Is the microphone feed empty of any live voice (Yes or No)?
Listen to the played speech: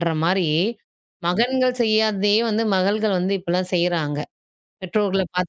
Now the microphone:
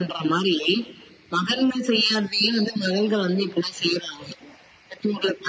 Yes